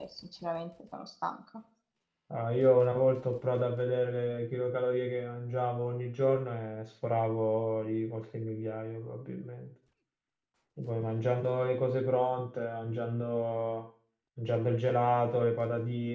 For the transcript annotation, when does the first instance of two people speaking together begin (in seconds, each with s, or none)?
none